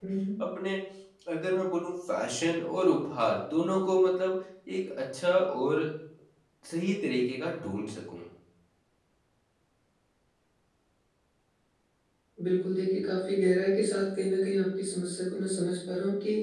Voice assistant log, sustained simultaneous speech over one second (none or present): none